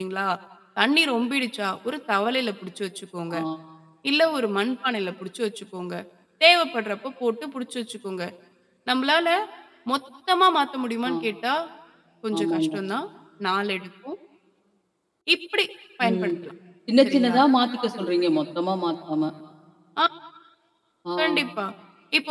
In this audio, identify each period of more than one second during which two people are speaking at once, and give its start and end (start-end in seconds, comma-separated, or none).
none